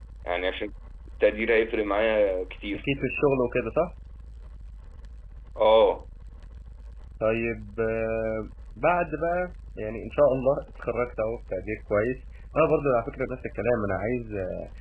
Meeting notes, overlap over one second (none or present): none